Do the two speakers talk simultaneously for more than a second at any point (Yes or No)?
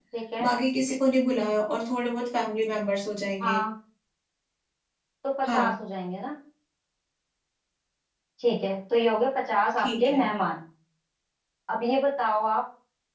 No